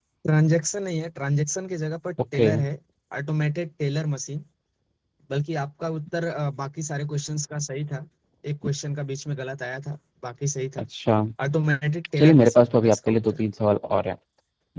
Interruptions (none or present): present